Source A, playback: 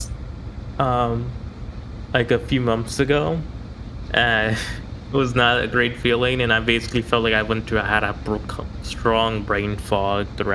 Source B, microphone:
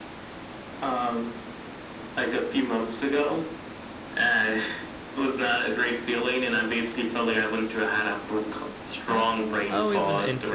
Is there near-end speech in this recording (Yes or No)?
Yes